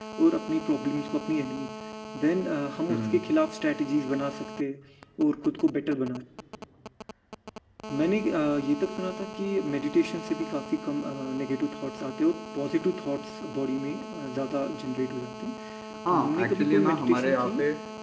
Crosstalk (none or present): present